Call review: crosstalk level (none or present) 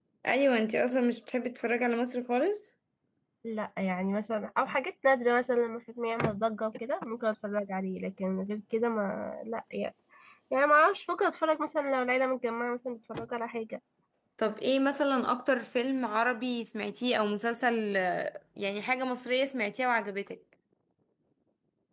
none